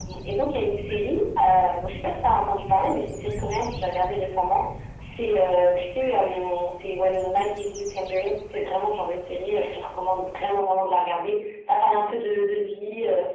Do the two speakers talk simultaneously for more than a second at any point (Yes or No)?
No